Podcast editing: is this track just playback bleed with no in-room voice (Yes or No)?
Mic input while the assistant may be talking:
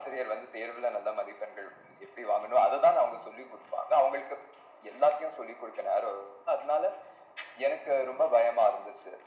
Yes